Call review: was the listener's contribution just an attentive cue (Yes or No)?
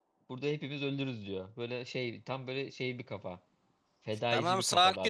No